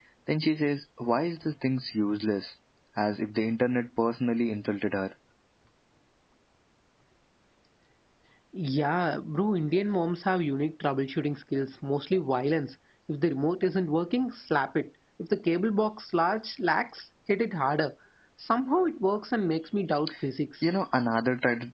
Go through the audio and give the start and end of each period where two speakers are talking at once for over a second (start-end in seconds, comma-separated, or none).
none